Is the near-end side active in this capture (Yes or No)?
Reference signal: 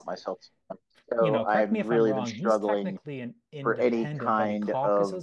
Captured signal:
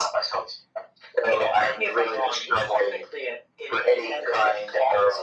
No